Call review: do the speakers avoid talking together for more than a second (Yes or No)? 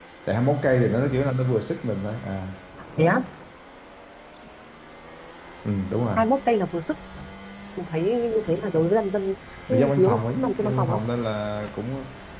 No